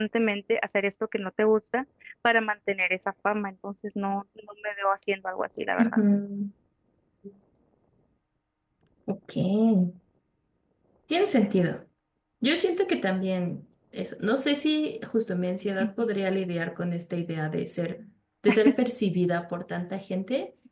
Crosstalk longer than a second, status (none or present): none